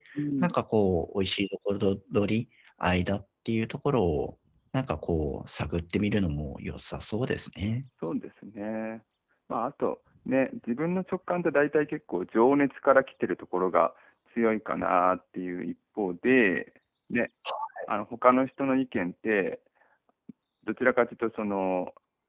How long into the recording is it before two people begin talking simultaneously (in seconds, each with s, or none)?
none